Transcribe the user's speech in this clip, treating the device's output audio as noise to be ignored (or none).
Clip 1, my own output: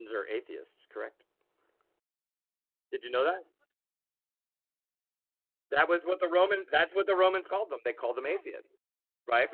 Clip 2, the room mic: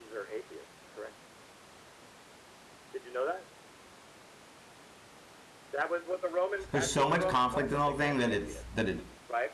there's so much conflict in the whole thing that it's that it.